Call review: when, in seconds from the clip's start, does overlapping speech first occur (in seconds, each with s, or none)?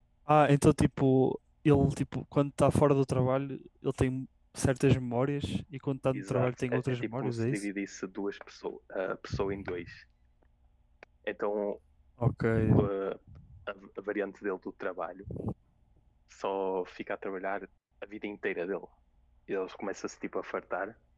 6.1 s